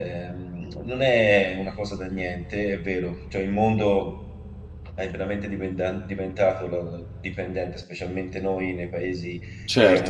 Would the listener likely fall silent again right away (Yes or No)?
No